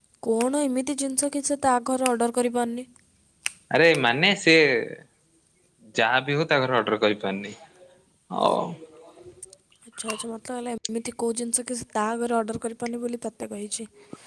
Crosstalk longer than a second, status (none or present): none